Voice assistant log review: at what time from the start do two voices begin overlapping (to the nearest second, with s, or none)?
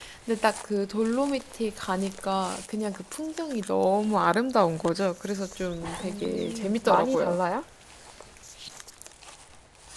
6 s